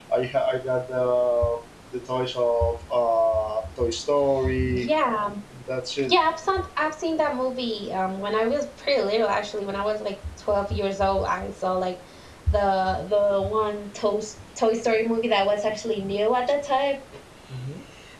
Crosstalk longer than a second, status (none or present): none